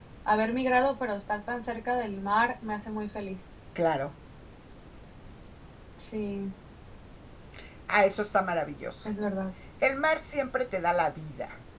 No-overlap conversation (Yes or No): Yes